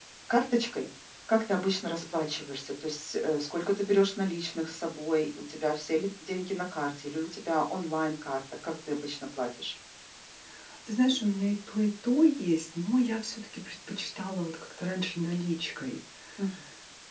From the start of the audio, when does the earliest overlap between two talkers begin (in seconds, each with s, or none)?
none